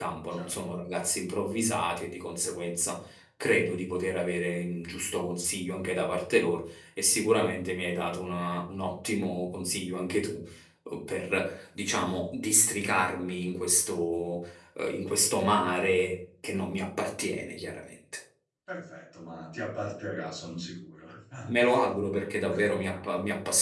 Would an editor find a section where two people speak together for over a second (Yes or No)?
No